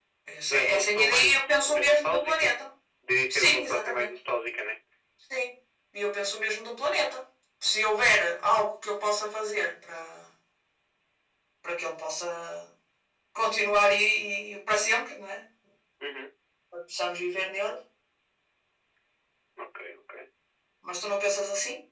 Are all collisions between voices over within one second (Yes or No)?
No